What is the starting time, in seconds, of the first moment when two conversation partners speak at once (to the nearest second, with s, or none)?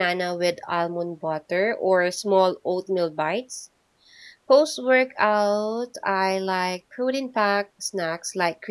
none